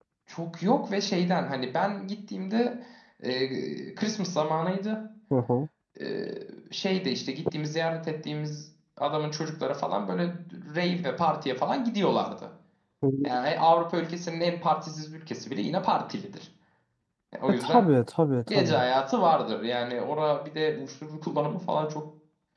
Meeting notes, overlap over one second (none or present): none